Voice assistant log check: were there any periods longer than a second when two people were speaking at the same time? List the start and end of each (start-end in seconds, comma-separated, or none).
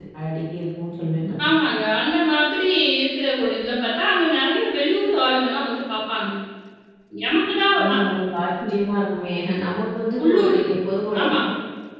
none